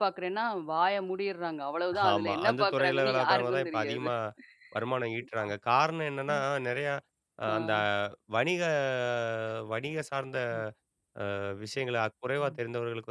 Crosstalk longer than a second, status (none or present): present